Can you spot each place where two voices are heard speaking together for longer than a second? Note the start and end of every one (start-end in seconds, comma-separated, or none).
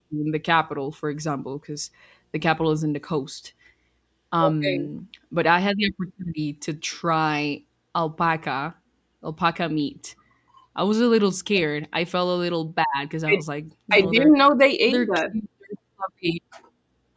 none